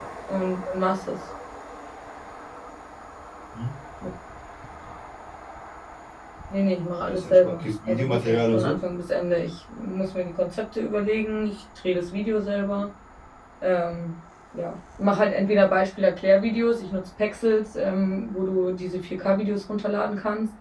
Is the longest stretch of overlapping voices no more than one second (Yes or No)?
No